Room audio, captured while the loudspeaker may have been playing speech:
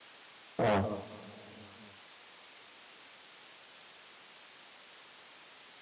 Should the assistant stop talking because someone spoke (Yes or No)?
Yes